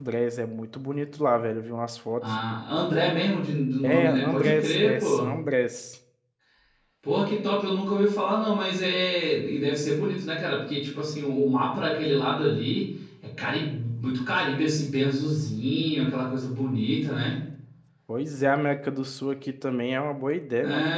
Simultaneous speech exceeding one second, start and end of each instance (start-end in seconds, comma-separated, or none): 3.8-5.3